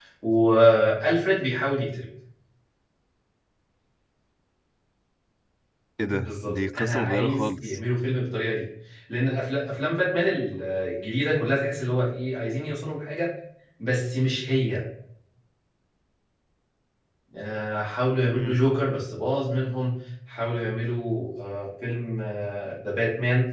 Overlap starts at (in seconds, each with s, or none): 6.1 s